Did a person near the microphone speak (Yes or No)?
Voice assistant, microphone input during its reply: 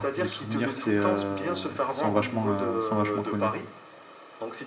Yes